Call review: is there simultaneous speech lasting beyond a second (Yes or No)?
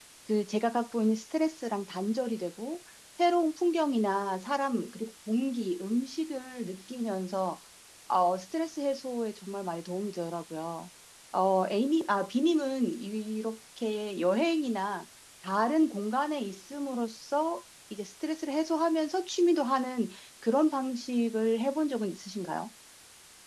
No